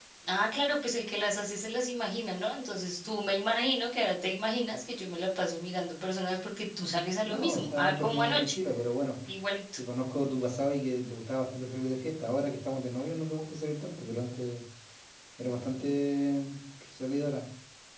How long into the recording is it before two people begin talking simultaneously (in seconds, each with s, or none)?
7.2 s